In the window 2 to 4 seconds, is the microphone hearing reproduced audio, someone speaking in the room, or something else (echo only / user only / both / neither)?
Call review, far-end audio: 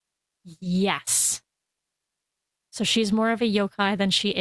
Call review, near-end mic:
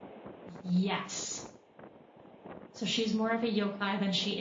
echo only